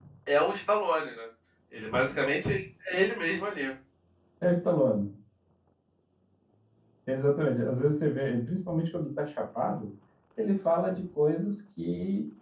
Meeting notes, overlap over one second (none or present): none